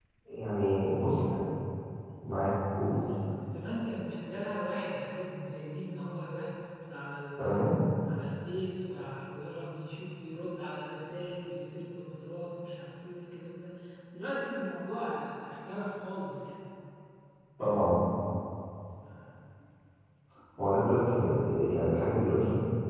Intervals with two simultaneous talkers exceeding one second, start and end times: none

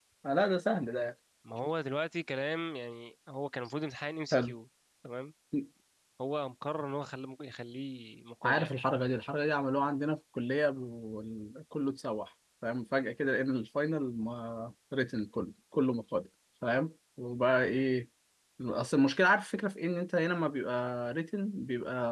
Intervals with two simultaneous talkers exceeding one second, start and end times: none

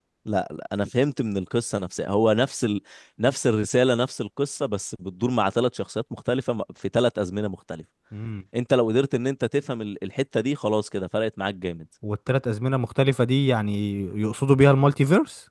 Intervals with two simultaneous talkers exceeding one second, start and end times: none

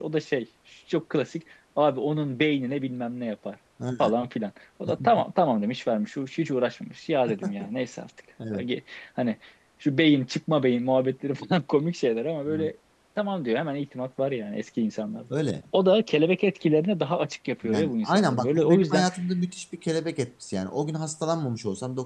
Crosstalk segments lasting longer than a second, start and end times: 17.7-19.1

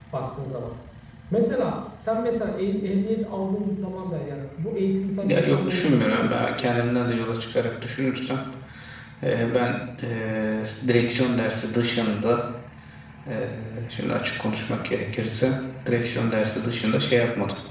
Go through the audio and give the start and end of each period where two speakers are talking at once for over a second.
5.2-6.5

